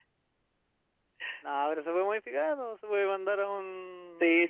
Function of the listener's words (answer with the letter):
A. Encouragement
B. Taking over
B